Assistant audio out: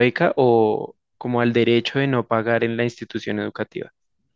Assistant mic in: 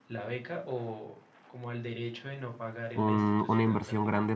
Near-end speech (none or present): present